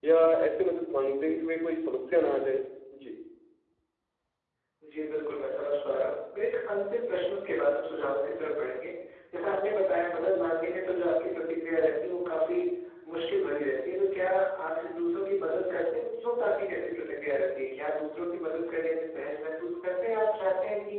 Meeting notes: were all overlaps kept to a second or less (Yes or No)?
Yes